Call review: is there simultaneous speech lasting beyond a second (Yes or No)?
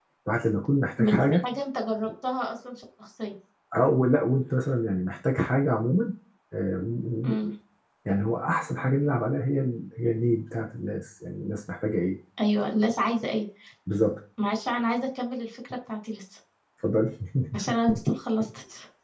No